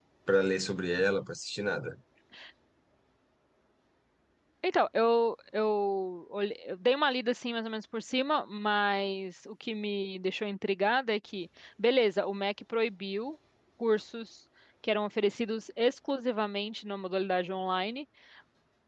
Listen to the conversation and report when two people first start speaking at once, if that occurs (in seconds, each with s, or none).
none